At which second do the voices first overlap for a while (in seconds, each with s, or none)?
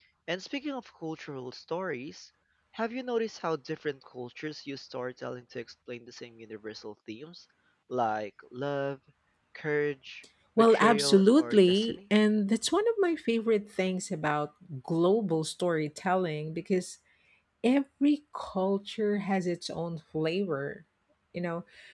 10.6 s